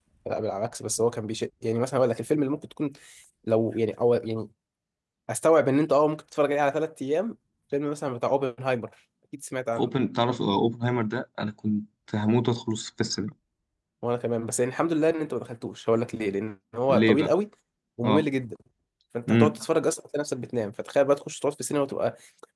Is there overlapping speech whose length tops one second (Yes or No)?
No